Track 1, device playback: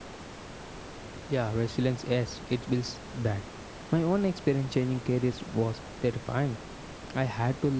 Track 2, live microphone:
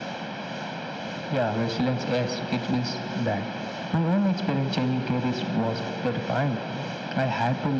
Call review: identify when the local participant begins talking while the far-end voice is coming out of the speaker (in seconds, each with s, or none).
none